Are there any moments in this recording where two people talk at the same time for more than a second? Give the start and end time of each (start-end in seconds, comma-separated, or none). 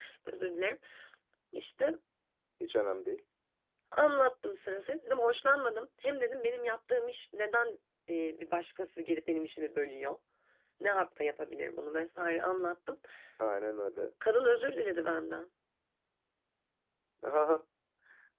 none